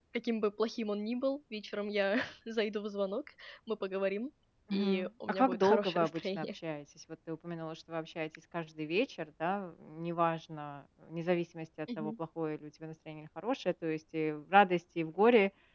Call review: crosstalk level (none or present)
present